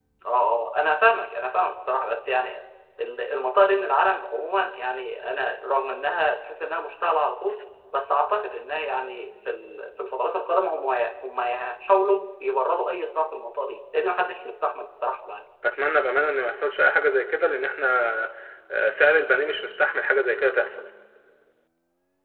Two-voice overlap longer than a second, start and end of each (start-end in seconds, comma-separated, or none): none